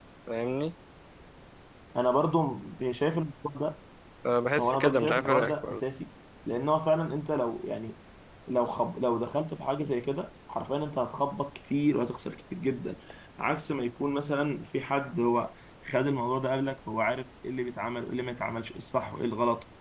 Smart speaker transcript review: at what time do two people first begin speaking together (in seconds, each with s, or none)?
4.6 s